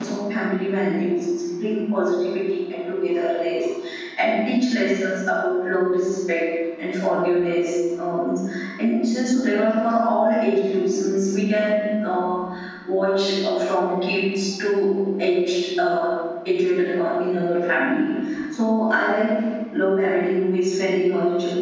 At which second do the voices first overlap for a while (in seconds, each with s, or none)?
none